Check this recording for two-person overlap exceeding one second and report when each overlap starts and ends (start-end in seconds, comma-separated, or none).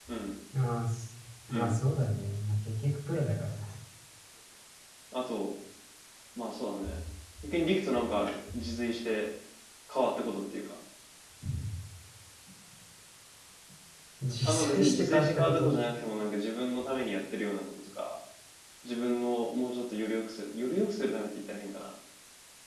14.4-15.7